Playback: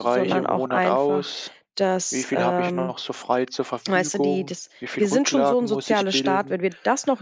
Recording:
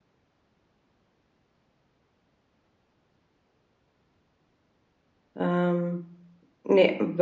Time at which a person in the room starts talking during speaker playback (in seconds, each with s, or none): 5.3 s